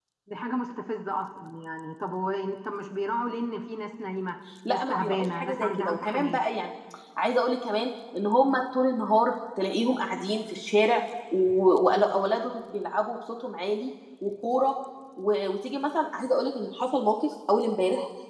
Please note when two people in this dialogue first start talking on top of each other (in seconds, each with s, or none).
4.6 s